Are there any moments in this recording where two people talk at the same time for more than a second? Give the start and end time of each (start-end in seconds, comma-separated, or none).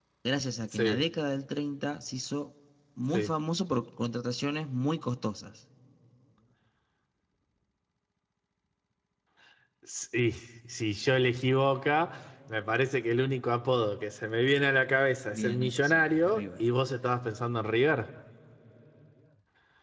15.3-16.6